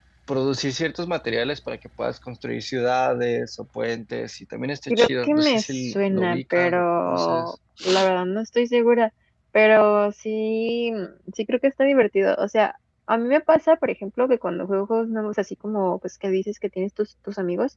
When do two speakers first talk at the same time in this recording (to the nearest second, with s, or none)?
5 s